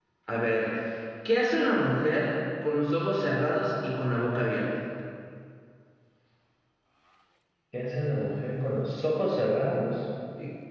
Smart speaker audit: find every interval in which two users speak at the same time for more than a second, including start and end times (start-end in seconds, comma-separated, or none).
none